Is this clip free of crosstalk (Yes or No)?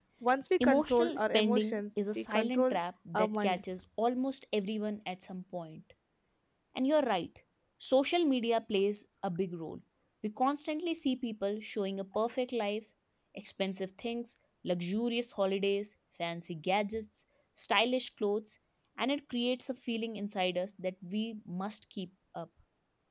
No